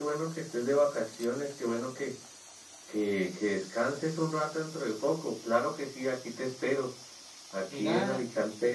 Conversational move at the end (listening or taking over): listening